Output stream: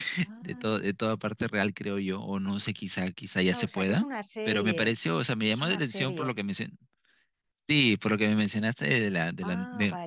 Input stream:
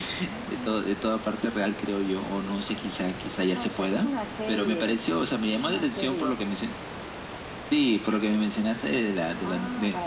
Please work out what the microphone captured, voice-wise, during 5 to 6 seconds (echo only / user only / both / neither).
echo only